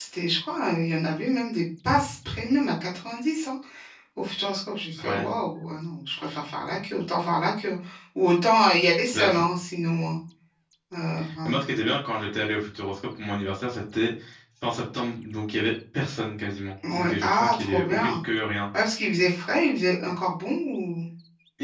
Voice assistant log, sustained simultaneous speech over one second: present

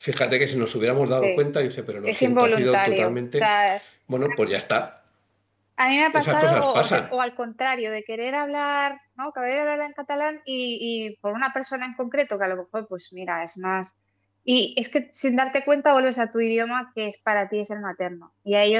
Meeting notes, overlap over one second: present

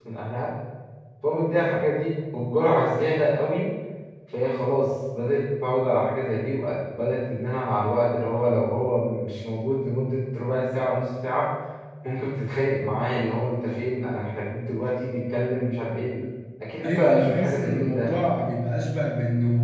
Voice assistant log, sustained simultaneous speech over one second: present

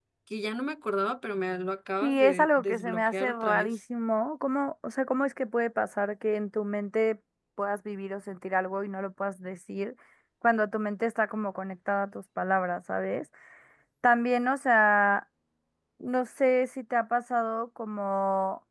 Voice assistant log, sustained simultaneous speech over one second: present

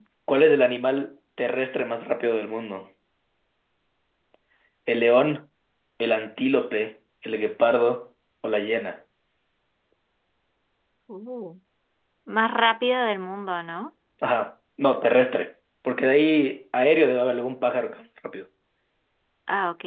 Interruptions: none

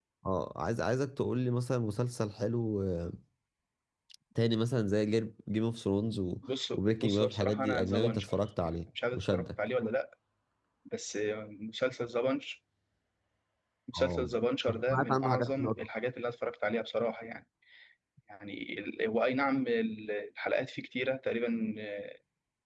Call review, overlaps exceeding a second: present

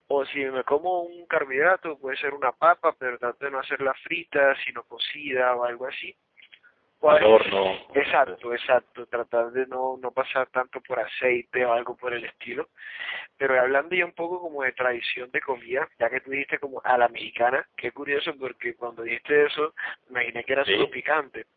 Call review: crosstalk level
present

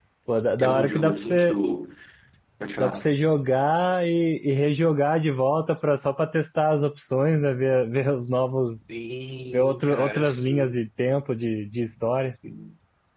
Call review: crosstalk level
present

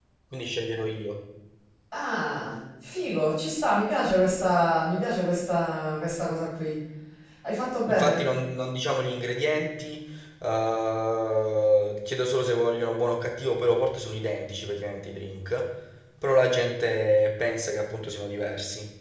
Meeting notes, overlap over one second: none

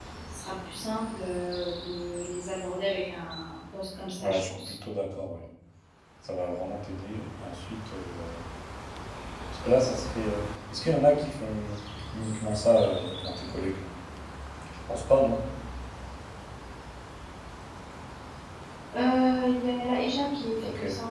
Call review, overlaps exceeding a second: none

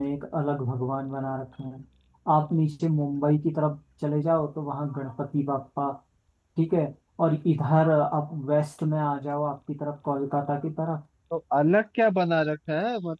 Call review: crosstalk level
none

